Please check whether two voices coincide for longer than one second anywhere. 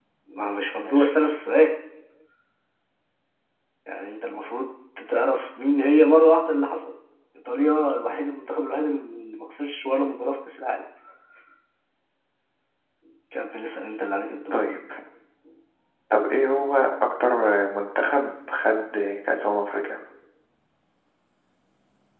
No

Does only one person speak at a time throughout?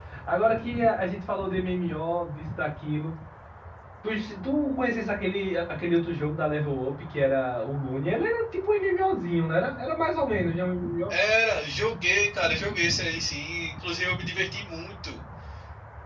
Yes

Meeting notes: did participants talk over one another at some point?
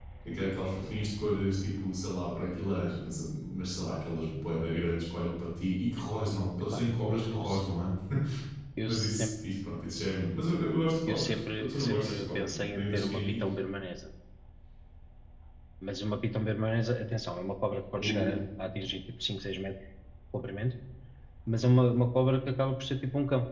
Yes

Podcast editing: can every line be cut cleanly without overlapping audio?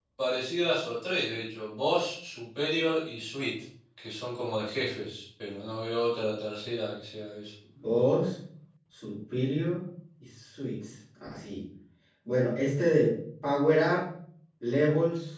Yes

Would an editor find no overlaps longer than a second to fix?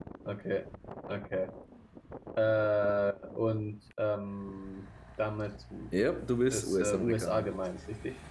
No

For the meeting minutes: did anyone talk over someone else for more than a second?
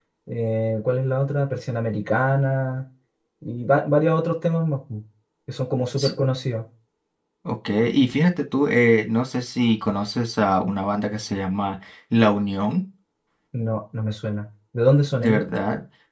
No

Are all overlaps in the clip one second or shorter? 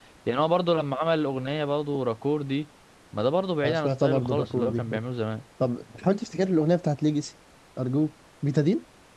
No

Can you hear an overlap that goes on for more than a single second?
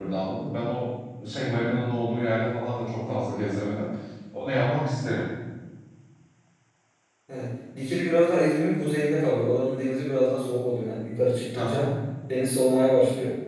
No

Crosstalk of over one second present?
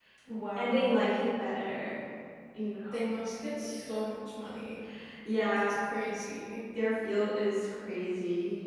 No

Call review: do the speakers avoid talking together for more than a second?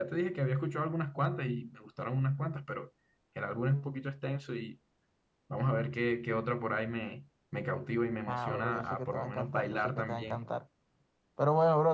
No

